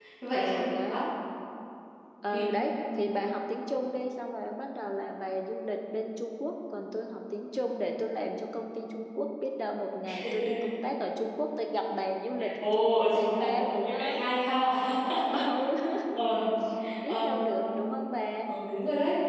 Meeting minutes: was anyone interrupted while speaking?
Yes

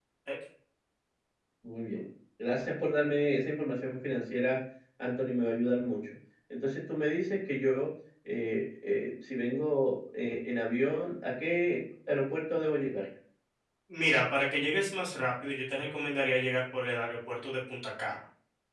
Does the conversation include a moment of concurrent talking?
No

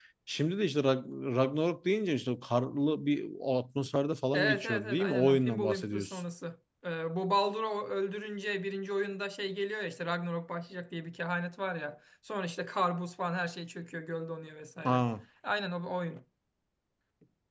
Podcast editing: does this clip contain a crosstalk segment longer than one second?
Yes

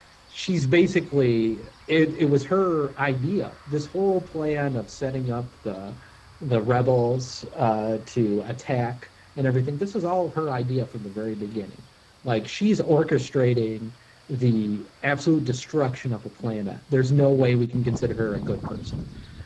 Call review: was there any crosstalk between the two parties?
No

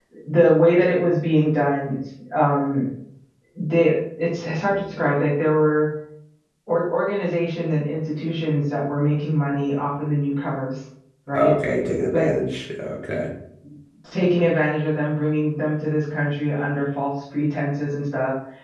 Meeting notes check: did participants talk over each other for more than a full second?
No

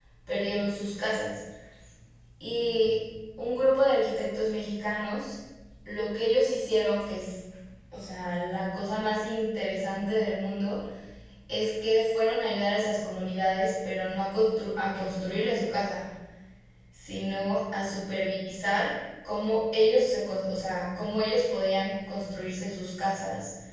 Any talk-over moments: No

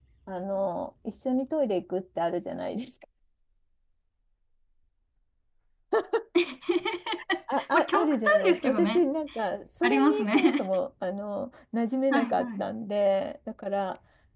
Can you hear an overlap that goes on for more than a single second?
Yes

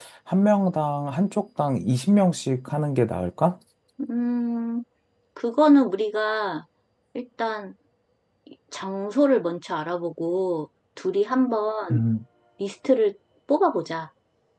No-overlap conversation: Yes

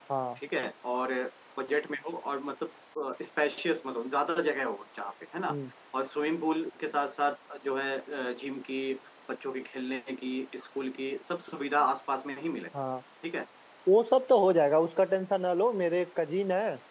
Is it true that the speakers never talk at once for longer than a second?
Yes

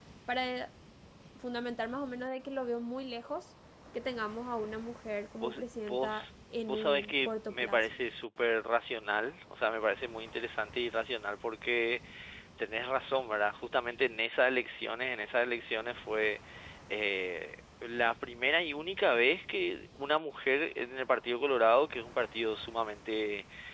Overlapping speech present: Yes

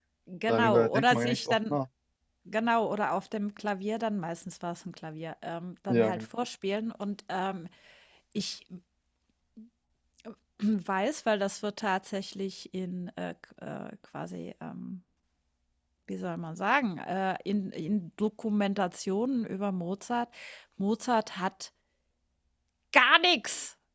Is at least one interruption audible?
Yes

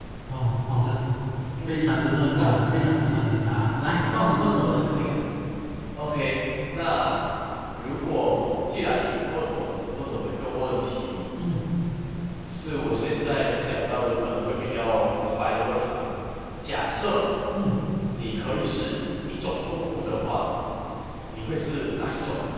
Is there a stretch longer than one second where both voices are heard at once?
No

